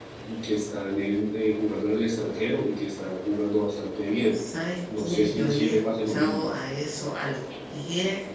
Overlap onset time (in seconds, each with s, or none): 5.0 s